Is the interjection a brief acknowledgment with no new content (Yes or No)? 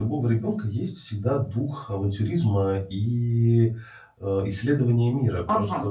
No